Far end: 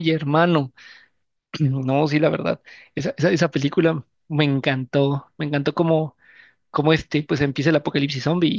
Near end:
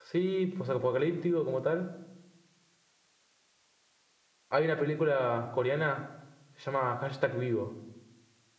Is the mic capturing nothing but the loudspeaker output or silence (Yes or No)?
No